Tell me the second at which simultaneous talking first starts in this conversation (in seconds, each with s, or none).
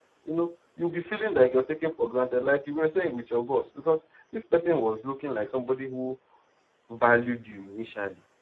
none